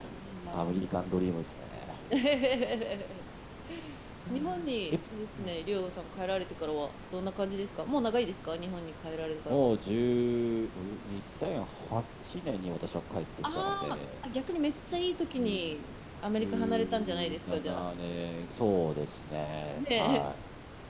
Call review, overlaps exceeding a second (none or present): present